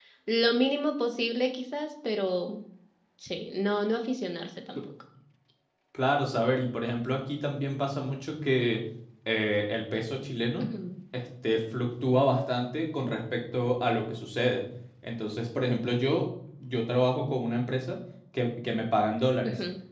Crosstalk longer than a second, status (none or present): none